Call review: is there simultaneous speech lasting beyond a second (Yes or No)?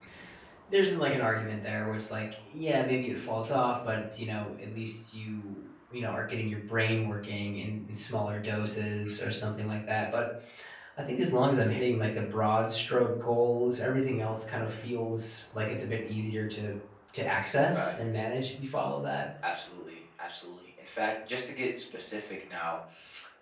No